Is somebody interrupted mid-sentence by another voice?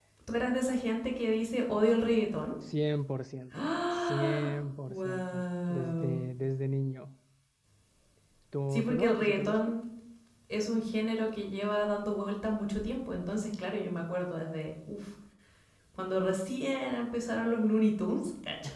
Yes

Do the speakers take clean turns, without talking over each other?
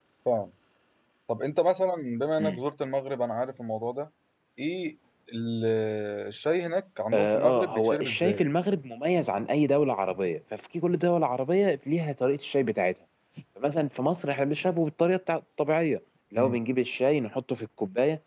No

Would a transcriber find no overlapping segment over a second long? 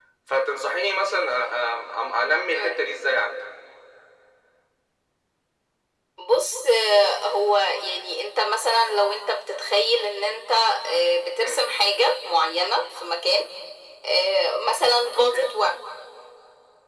Yes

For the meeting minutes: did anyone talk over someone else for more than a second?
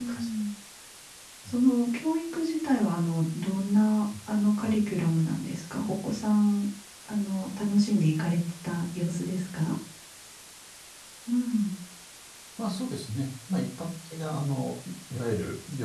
No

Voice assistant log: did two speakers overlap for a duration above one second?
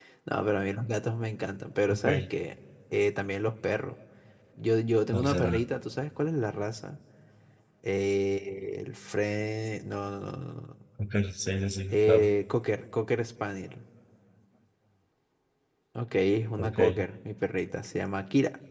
No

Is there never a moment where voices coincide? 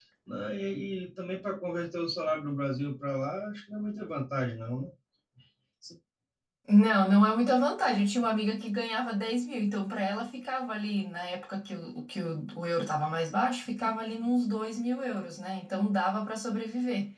Yes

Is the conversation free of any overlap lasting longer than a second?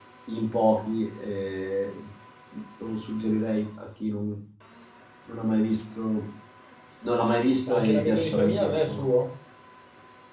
No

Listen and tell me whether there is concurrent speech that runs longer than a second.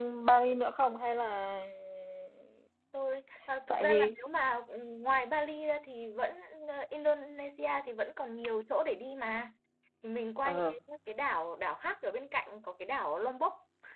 No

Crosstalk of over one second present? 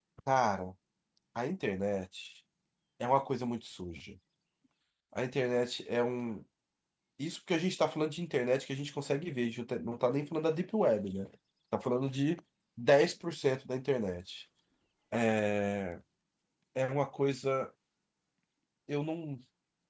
No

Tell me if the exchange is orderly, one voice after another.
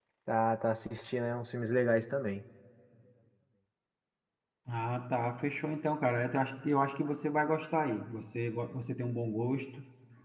Yes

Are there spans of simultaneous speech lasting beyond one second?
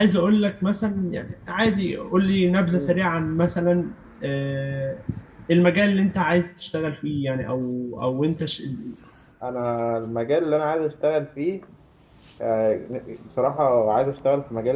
No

